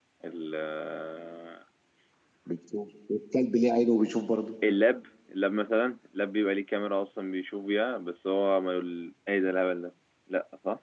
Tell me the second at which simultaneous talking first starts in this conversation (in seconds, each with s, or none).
none